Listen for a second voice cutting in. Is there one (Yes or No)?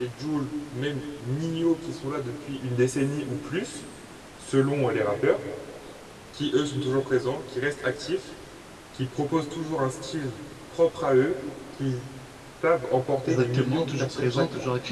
Yes